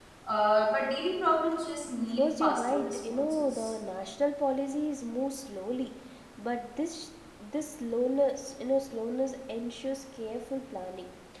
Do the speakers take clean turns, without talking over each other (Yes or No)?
No